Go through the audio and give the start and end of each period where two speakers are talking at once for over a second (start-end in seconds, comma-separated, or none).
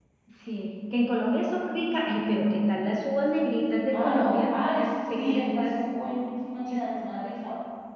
3.9-5.8